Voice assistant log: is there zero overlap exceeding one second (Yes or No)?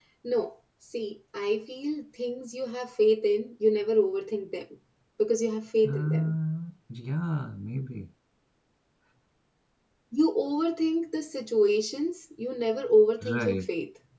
Yes